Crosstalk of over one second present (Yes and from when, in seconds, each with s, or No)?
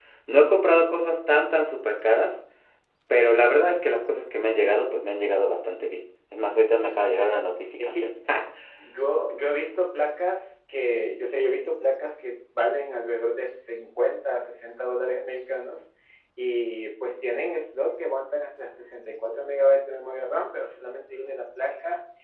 No